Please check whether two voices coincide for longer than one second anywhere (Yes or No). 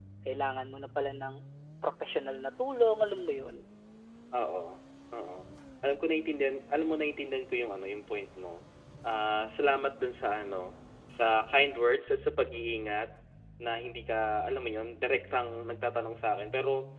No